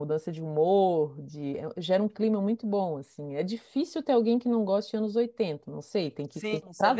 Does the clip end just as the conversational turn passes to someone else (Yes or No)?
Yes